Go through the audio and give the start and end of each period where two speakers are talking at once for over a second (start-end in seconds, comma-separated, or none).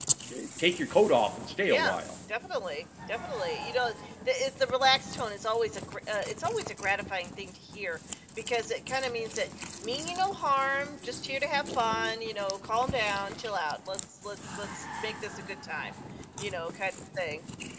none